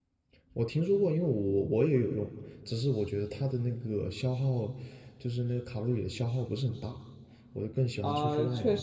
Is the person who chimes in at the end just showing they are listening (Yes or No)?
No